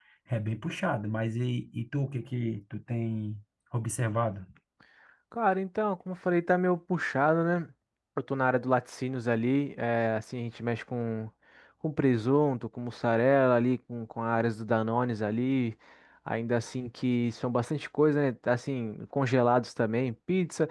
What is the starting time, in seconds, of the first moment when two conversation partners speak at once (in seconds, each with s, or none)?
none